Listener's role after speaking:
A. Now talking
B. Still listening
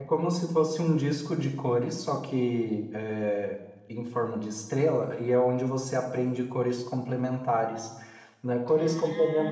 B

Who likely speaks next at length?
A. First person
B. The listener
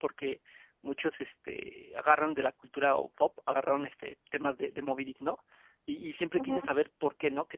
A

